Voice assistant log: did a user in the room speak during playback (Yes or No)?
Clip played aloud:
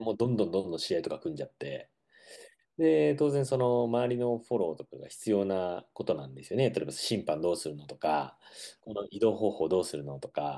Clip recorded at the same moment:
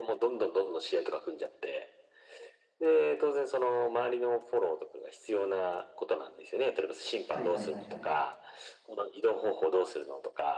Yes